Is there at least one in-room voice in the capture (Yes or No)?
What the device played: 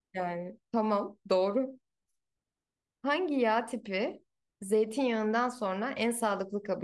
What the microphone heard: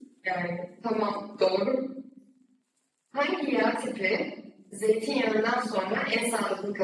No